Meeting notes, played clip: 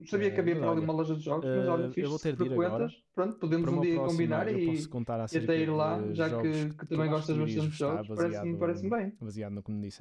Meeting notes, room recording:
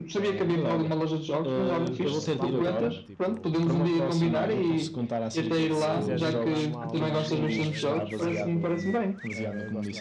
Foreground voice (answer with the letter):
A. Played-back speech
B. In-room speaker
A